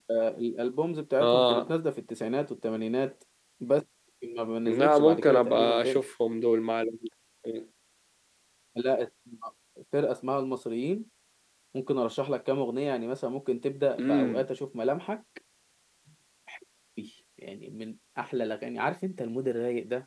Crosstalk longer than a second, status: present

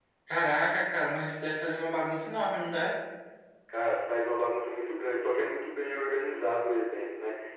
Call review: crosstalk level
none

